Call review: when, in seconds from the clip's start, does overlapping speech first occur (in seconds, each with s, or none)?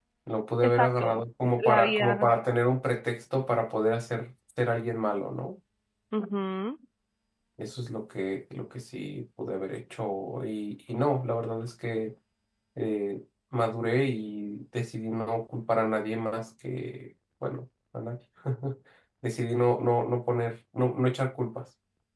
0.6 s